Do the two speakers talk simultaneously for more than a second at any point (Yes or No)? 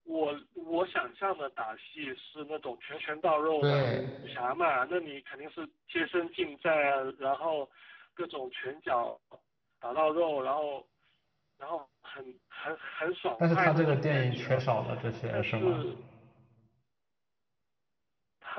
Yes